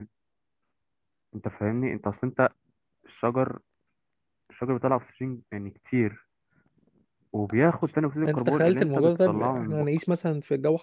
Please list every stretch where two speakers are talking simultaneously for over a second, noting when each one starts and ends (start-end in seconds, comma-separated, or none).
8.2-9.8